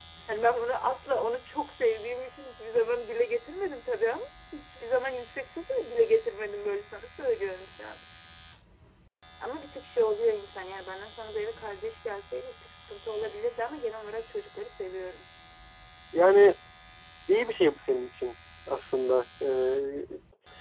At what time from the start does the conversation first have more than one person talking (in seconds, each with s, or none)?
none